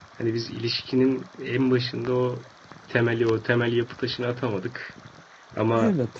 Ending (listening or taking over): listening